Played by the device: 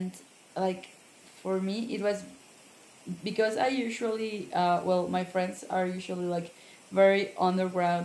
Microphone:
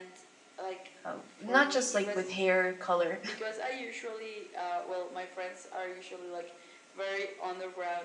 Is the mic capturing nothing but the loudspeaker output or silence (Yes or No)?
No